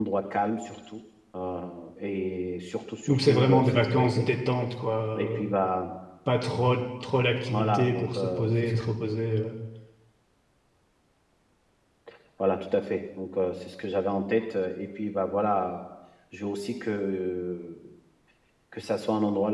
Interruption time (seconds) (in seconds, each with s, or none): 3.1 s